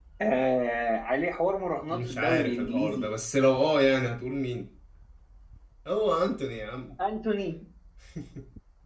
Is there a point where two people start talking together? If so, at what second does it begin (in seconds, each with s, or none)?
1.9 s